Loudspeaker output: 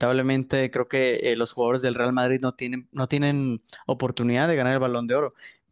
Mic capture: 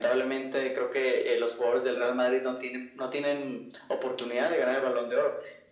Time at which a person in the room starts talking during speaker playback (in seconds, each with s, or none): none